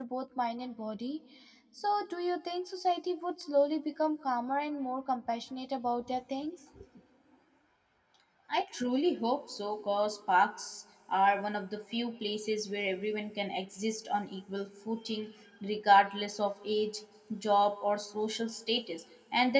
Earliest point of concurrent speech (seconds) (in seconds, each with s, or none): none